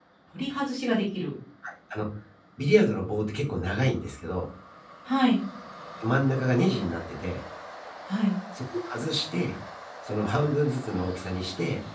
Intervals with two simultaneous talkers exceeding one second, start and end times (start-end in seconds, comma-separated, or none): none